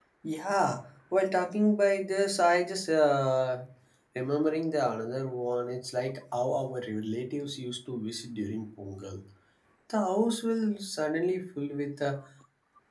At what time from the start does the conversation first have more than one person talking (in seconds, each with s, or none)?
none